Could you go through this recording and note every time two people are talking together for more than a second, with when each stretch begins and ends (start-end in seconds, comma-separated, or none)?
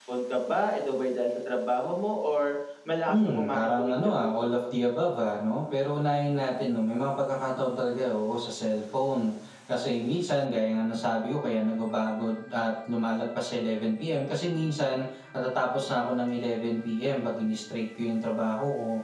3.1-4.3